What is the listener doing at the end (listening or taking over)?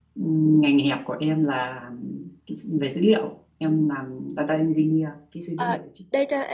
taking over